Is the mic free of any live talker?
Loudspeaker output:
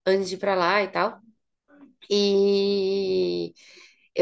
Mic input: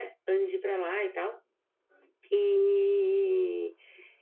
Yes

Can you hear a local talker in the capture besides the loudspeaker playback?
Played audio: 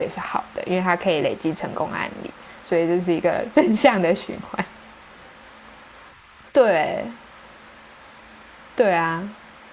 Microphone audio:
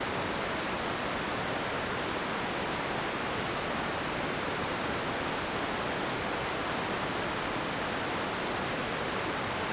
No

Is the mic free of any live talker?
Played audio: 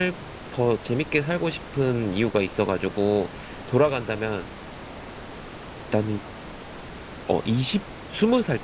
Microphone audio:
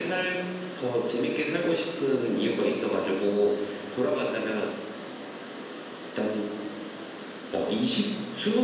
Yes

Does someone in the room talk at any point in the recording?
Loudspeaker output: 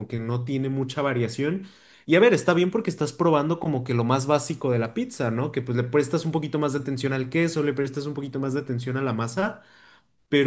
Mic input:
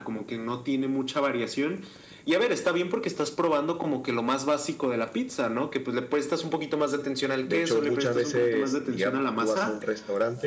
Yes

